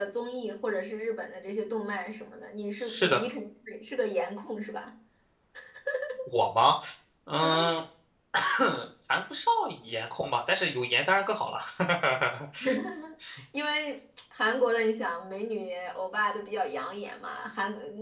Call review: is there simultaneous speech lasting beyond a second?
No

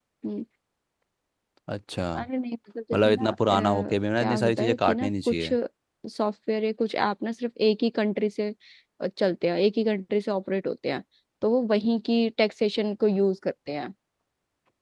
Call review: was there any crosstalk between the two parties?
Yes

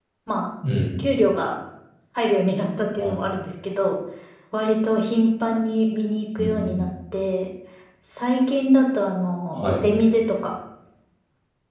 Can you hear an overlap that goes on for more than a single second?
No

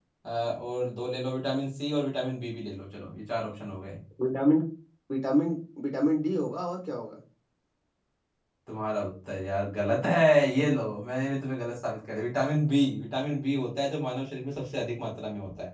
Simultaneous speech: No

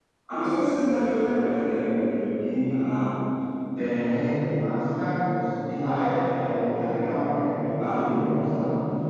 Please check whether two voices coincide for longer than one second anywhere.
No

